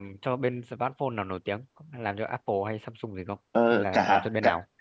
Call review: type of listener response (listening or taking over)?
taking over